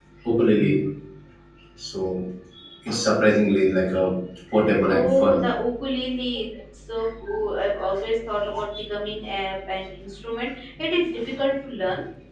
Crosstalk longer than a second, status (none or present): none